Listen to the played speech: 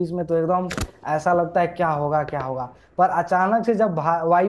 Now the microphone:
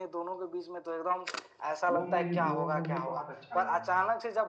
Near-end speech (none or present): present